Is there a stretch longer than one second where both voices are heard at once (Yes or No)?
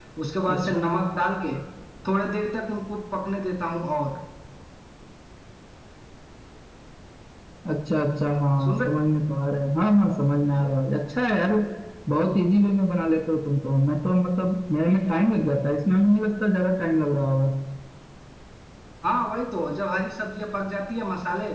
No